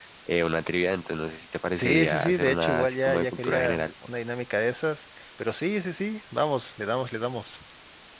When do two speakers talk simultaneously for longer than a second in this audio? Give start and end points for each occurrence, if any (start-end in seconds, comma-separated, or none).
1.7-3.8